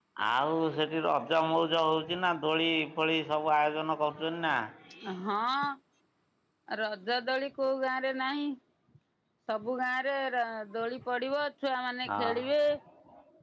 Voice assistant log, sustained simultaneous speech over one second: none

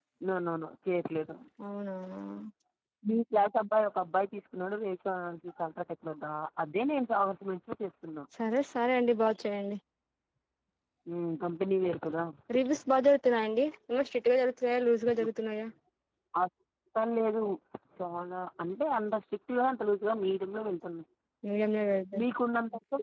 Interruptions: none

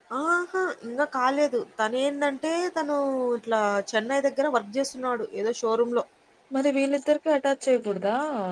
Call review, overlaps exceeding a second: none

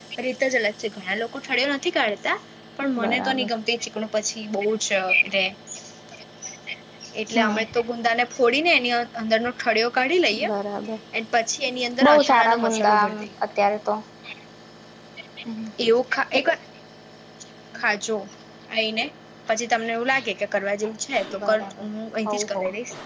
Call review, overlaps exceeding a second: present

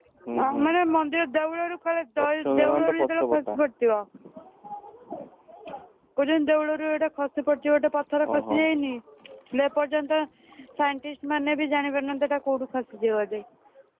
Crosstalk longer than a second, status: present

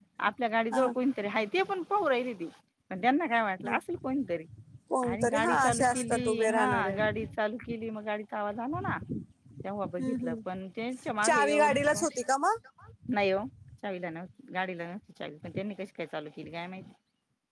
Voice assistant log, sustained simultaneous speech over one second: present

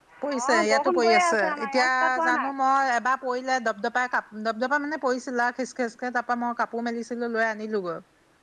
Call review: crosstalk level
present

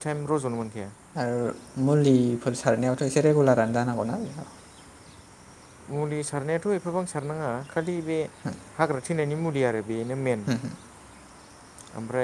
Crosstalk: none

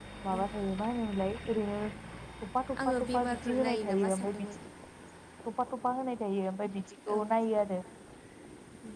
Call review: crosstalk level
present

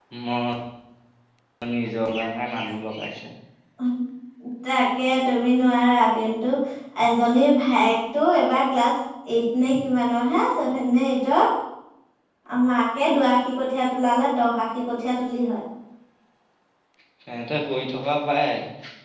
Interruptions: none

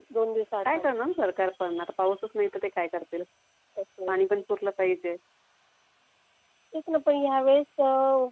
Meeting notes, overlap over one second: none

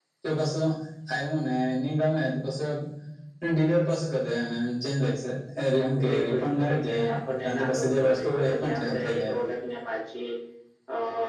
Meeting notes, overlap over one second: present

